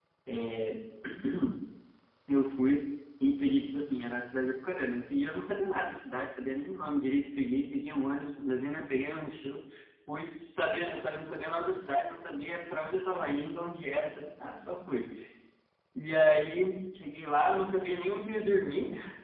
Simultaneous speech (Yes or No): No